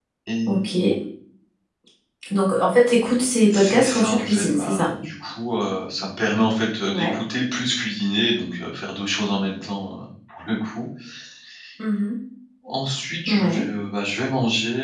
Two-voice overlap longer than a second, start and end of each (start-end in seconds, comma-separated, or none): 3.5-4.9